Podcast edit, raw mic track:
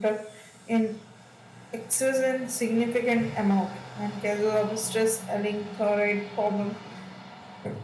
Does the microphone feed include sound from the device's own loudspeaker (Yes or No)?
Yes